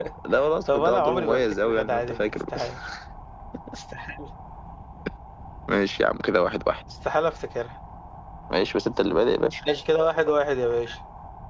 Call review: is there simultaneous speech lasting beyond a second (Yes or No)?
Yes